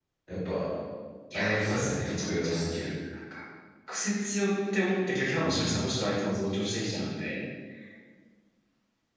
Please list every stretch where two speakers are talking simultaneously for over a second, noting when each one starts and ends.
1.3-2.5

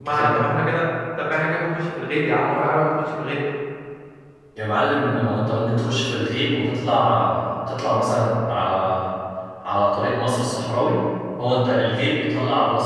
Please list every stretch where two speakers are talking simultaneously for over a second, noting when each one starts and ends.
none

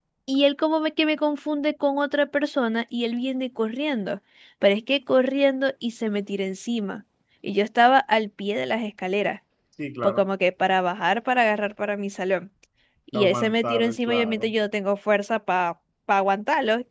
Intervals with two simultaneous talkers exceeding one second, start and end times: 13.1-14.5

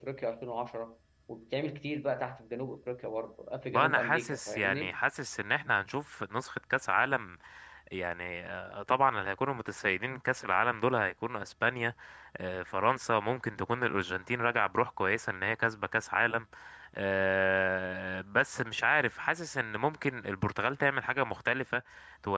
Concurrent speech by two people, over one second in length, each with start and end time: 3.7-5.0

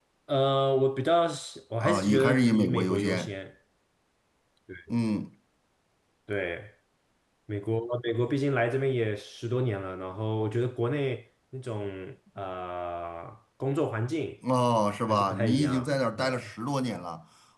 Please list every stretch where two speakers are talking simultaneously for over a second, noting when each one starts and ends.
1.8-3.3, 15.1-16.3

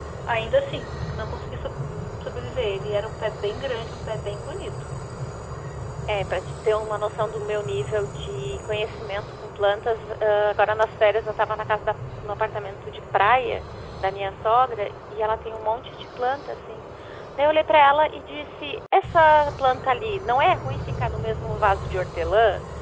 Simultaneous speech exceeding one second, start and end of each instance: none

